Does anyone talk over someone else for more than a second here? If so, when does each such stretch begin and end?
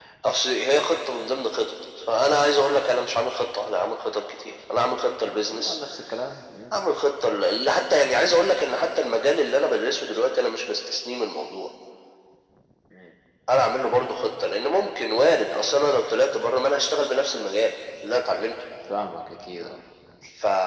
none

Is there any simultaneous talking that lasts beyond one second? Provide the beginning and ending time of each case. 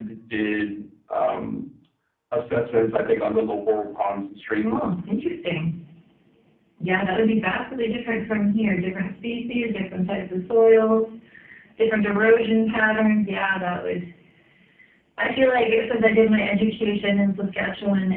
none

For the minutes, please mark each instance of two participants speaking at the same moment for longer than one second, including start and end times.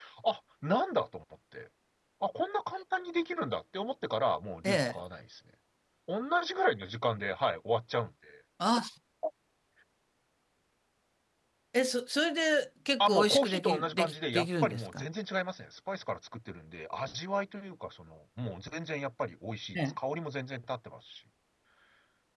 13.0-15.0

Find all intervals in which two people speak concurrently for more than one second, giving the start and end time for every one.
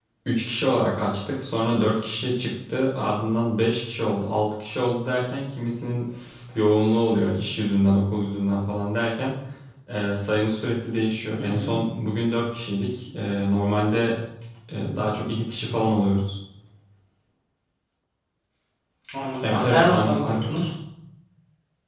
19.4-20.7

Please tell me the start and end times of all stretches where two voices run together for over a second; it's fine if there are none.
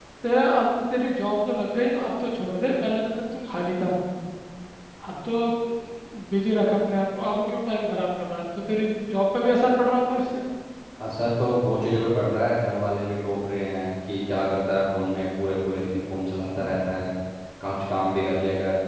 none

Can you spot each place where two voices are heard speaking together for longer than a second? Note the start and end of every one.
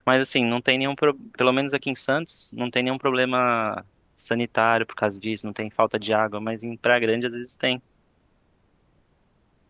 none

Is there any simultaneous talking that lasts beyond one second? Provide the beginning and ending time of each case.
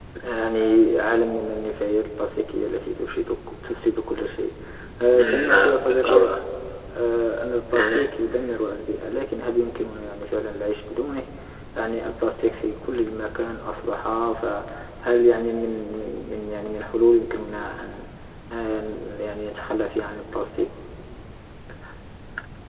5.2-6.4

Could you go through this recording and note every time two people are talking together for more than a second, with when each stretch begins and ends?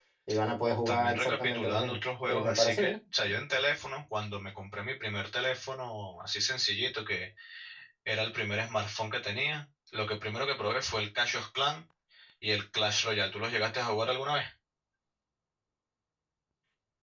0.8-3.0

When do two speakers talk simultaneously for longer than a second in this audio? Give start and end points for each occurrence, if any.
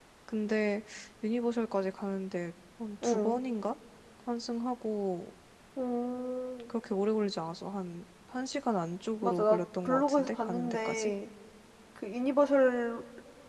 9.2-11.1

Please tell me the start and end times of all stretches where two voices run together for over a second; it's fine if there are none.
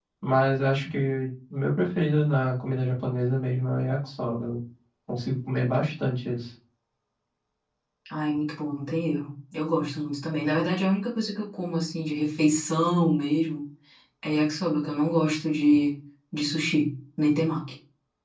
none

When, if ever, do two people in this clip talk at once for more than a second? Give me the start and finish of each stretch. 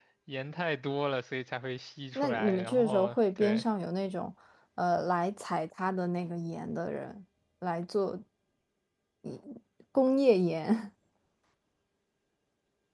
2.1-3.6

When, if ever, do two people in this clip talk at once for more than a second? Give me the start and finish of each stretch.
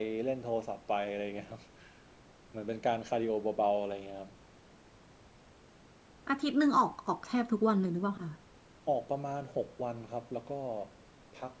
none

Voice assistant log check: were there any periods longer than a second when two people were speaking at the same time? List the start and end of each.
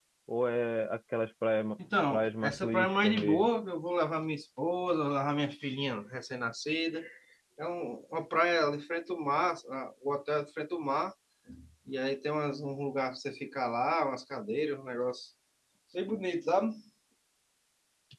2.1-3.5

